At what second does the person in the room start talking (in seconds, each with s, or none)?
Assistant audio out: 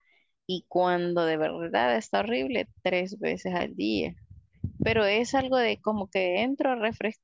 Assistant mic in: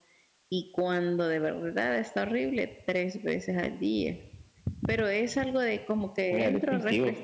6.3 s